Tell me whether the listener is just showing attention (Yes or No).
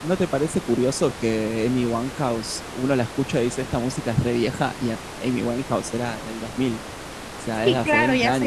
No